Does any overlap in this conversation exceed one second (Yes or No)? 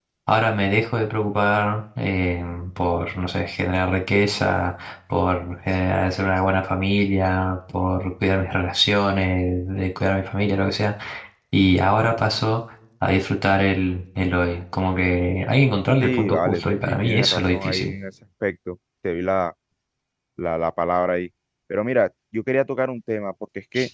Yes